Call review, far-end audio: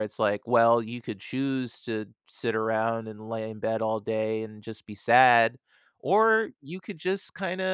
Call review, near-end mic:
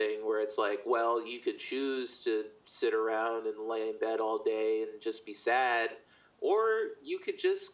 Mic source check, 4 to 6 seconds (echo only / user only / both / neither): echo only